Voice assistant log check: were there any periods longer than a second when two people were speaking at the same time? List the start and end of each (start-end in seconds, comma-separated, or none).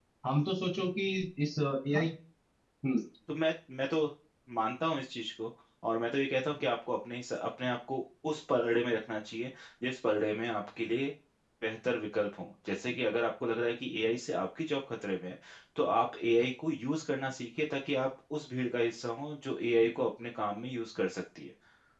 none